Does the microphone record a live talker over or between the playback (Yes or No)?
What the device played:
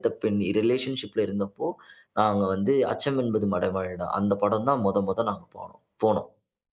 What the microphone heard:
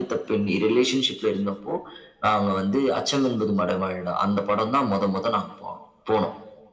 No